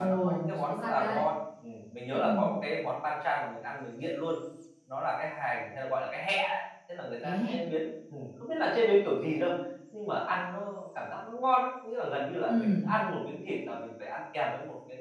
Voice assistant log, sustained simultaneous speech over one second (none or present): present